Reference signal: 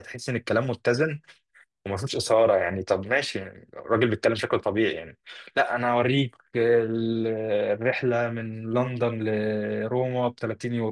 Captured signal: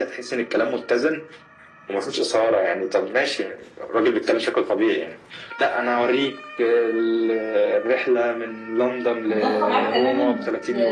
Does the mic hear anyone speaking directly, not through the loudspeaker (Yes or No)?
Yes